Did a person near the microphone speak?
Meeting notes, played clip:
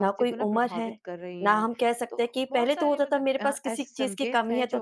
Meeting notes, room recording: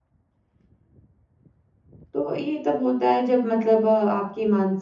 Yes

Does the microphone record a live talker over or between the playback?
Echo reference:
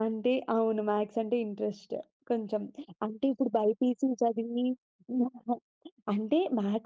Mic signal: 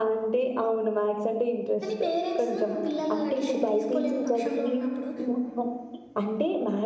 Yes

